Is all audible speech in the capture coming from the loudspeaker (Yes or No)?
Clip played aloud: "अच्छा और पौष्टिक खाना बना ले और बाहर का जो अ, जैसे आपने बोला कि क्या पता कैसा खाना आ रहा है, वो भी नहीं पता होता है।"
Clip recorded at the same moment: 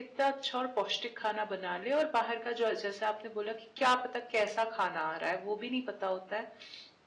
Yes